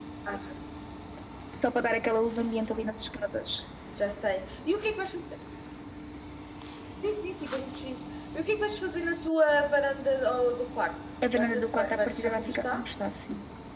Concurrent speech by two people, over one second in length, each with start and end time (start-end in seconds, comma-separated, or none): 11.3-12.8